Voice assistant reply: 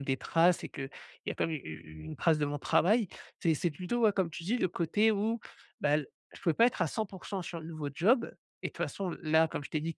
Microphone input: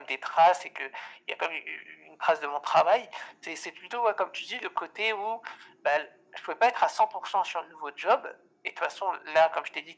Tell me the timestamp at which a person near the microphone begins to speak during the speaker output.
none

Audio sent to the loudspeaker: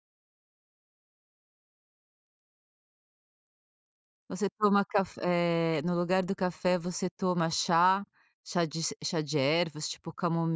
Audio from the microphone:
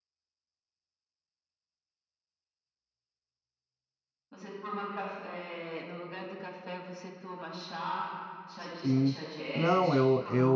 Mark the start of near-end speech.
8.6 s

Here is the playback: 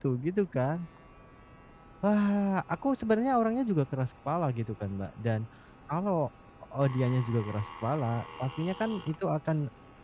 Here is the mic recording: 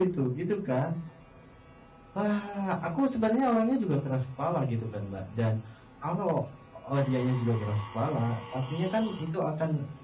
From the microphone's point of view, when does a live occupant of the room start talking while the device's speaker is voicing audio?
none

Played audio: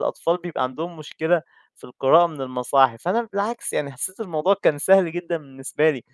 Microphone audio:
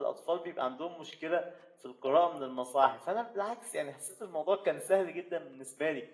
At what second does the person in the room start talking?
none

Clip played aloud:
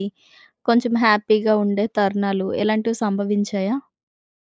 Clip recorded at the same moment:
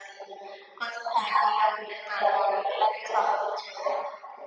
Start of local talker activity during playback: none

